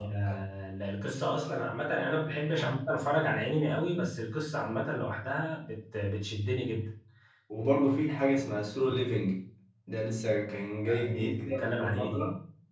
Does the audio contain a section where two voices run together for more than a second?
Yes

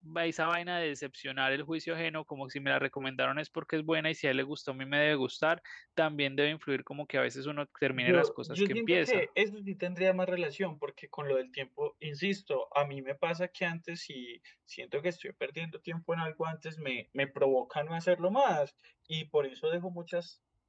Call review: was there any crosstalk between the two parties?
Yes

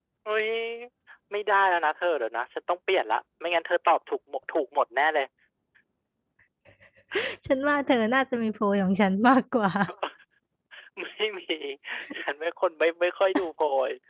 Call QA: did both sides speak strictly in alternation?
Yes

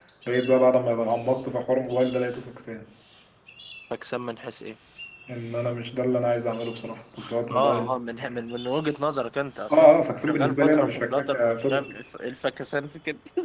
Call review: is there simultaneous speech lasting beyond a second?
Yes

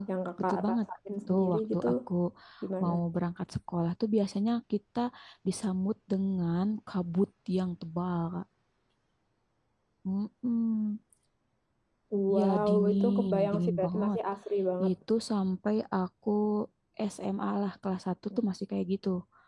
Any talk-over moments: Yes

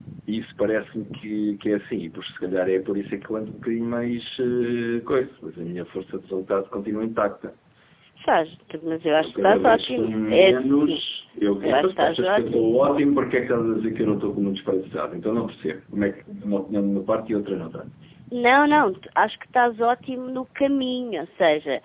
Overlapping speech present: Yes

